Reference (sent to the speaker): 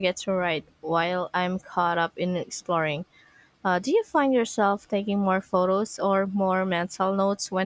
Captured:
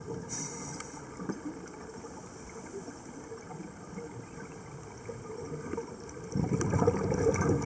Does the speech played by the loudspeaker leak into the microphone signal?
No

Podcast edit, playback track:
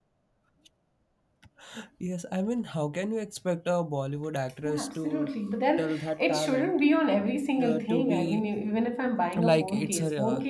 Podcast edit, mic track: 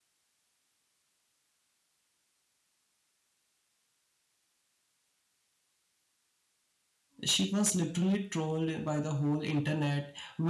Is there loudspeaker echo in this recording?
No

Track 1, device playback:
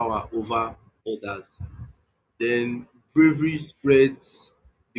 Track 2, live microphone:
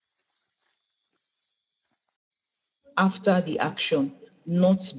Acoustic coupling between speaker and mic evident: No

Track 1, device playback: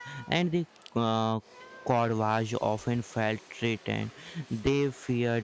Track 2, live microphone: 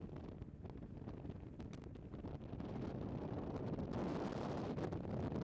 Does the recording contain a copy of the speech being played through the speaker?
No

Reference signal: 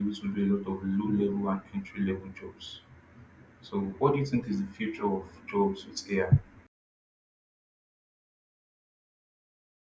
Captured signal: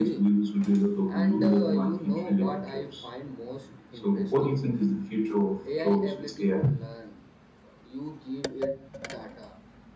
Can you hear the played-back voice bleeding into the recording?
Yes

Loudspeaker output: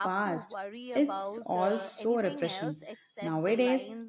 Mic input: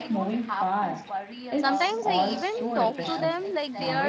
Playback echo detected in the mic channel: Yes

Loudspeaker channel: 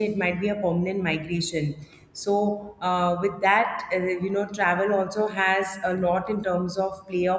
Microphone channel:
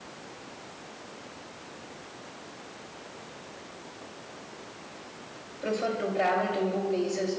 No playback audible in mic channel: Yes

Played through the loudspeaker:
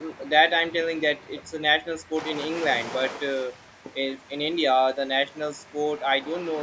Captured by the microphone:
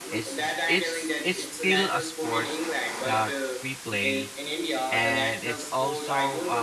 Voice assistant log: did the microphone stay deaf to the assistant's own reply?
No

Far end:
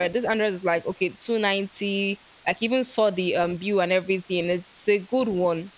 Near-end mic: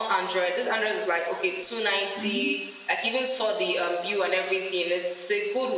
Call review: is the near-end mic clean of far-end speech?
No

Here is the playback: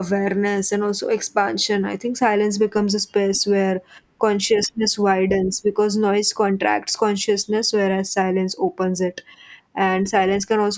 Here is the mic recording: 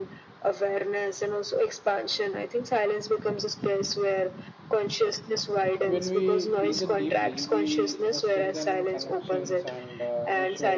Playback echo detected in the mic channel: Yes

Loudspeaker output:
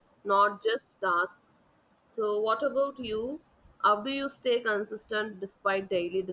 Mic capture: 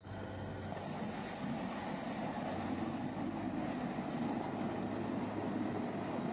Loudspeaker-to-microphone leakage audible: No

